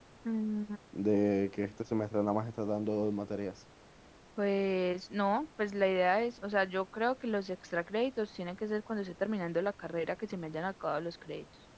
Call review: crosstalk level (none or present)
none